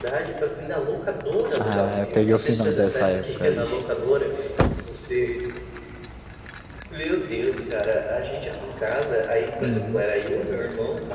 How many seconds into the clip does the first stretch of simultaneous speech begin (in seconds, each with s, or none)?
1.5 s